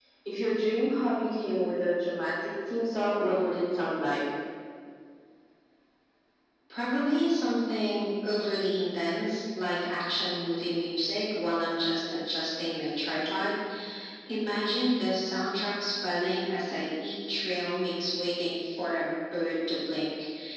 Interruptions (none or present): none